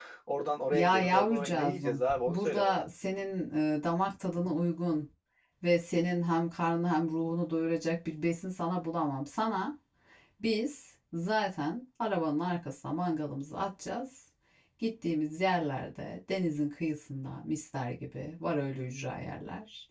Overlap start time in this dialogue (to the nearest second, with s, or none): 1 s